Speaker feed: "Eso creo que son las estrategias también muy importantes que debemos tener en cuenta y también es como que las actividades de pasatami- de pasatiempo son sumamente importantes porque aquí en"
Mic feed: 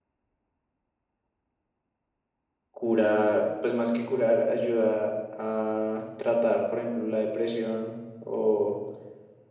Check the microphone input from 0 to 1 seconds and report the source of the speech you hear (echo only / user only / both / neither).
neither